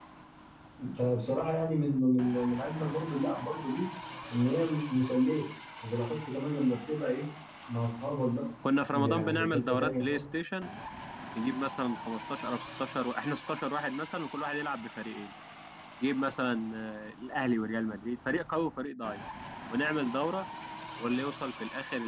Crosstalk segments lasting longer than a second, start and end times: 8.9-10.2

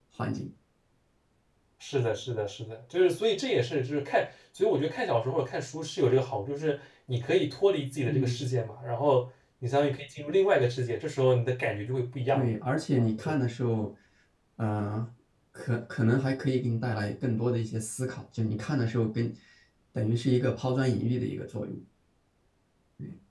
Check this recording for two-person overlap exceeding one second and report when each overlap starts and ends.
none

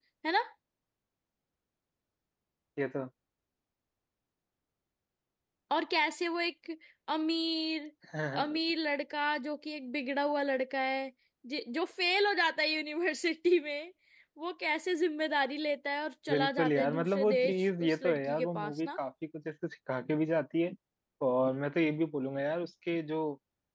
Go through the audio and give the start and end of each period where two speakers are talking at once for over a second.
16.3-19.0

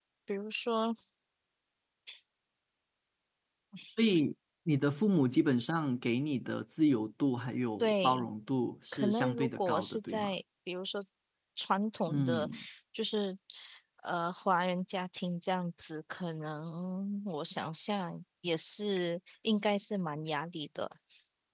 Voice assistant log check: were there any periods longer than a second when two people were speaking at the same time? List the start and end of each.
8.9-10.3

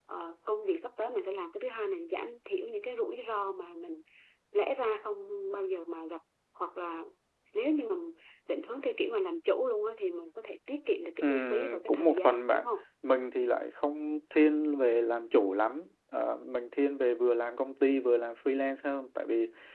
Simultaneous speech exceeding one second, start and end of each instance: 11.2-12.7

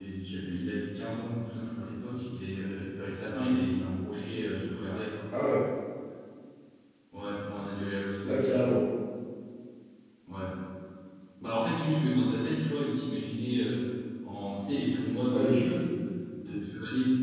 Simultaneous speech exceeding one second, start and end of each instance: none

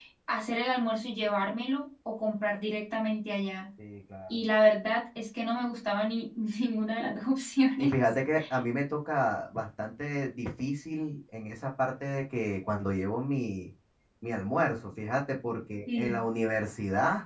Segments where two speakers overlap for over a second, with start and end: none

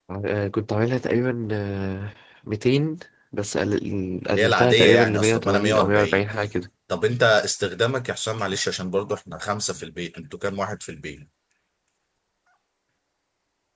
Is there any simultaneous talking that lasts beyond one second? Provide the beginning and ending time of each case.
4.4-6.2

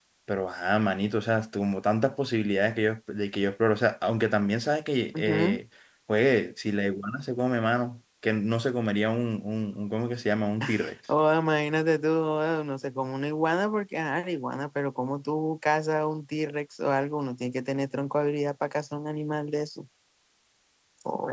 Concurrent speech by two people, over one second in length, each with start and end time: none

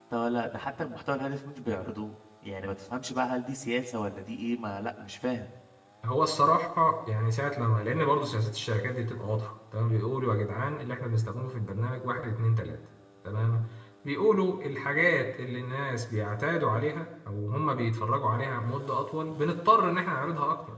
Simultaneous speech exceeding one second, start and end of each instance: none

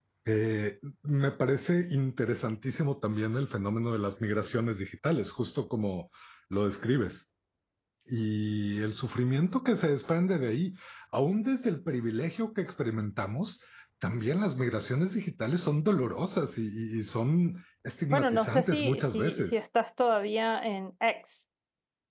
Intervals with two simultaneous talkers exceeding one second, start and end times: 18.1-19.6

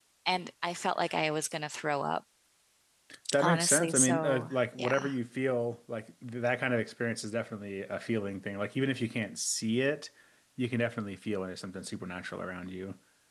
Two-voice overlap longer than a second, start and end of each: 3.4-5.1

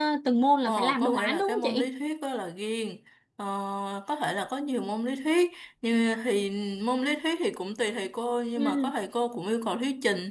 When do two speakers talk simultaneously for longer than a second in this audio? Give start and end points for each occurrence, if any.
0.7-1.9

